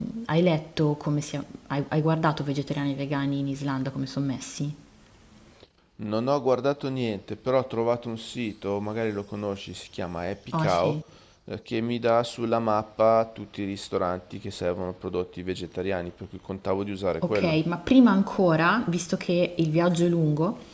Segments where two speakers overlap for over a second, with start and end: none

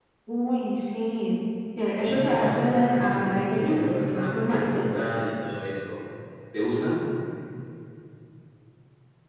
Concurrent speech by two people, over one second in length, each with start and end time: 1.9-4.8

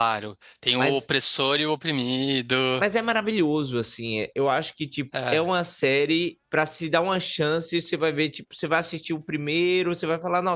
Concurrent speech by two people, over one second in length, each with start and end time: none

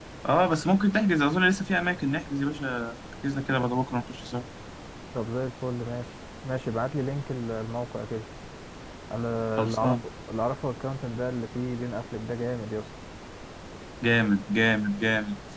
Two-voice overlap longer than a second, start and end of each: none

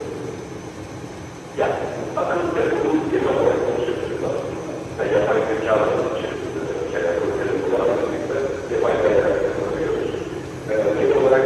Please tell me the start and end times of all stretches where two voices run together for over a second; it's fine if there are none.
none

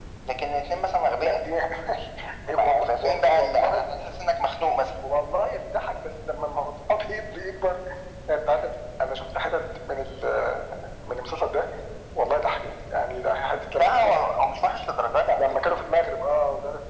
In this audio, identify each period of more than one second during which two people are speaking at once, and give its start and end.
2.5-3.8

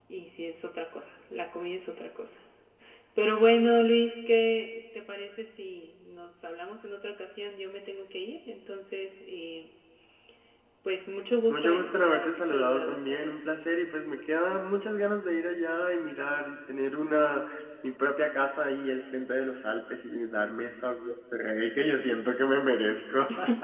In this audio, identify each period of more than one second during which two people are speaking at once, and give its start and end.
11.5-13.5

